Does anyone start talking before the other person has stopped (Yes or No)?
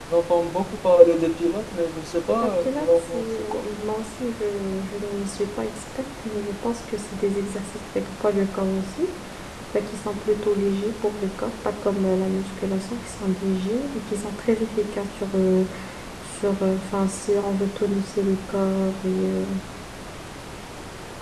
Yes